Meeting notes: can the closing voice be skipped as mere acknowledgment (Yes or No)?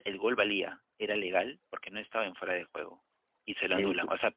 Yes